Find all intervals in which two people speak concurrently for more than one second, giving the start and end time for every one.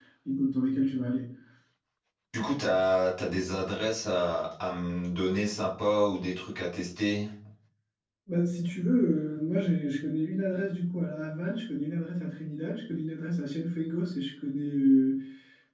none

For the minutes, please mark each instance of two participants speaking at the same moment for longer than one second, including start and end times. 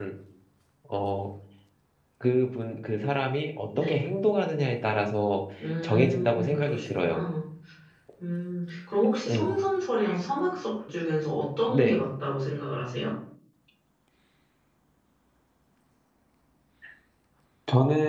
5.8-7.2

